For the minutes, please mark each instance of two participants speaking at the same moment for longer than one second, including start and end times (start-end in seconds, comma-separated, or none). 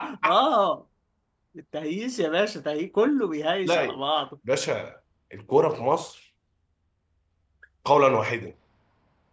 none